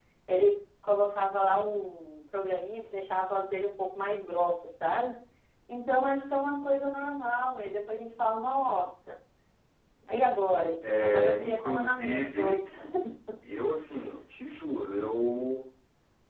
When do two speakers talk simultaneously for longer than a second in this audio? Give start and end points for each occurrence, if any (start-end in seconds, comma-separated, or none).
11.0-12.6